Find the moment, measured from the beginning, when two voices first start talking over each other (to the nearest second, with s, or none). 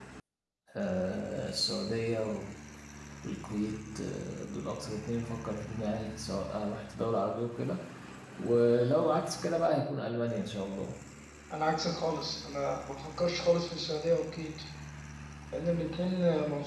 none